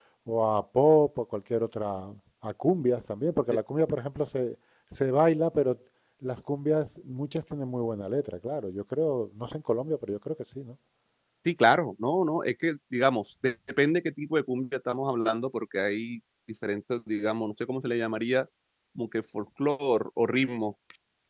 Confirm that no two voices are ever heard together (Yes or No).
Yes